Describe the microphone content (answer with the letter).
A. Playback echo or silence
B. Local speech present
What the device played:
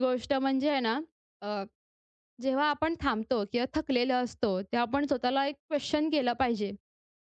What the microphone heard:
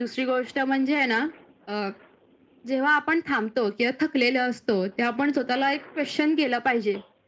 A